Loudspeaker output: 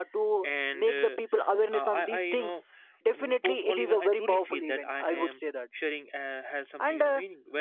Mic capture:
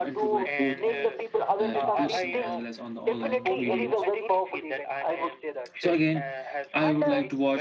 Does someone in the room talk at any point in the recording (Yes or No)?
Yes